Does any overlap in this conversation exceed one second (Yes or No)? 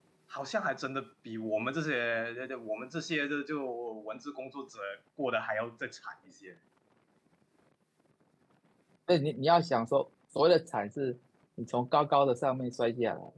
No